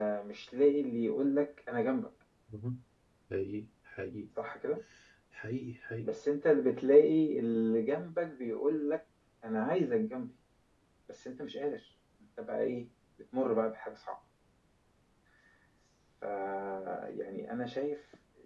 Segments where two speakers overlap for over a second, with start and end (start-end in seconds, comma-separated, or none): none